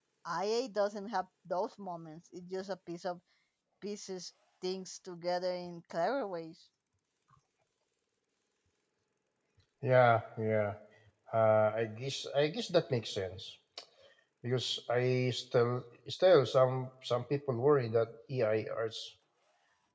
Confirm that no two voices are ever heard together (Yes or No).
Yes